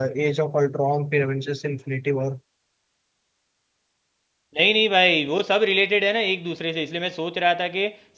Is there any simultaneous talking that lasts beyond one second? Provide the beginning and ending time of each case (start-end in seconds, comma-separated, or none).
none